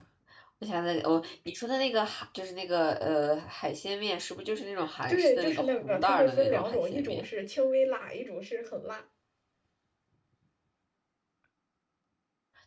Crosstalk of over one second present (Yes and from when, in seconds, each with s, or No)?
Yes, from 5.1 s